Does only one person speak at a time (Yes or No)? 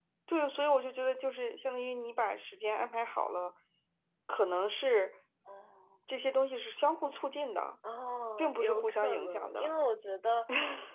No